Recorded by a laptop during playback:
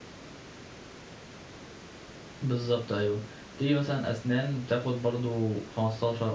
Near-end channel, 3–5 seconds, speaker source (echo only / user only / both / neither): user only